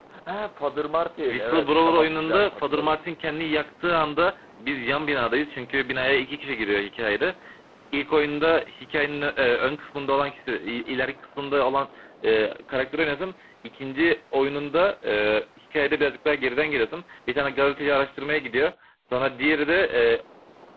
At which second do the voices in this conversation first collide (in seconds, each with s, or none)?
1.3 s